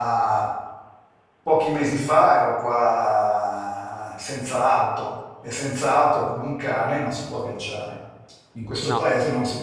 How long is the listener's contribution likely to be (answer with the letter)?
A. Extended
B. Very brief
B